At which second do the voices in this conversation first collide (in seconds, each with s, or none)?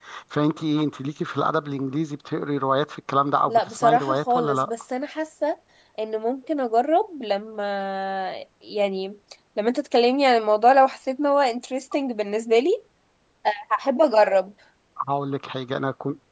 3.5 s